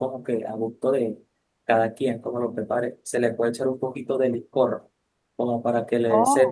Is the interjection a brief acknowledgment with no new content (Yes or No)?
Yes